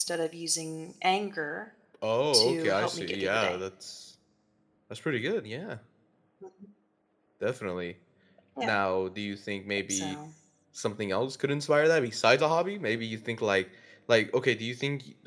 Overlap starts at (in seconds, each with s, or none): 2.3 s